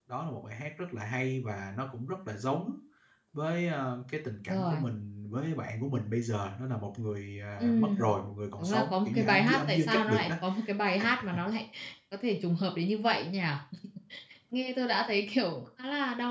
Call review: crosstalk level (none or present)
present